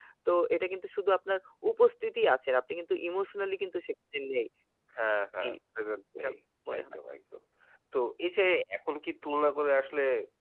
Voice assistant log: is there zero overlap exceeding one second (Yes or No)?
Yes